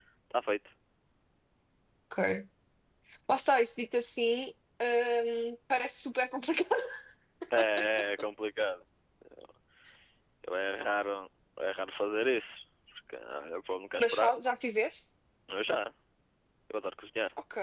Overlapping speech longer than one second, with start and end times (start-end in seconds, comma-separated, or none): none